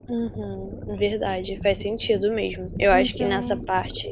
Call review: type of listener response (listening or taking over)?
listening